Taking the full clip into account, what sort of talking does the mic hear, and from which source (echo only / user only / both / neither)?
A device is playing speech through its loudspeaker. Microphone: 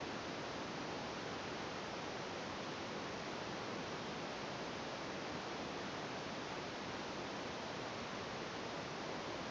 neither